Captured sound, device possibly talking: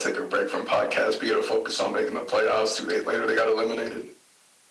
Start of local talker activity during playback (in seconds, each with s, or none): none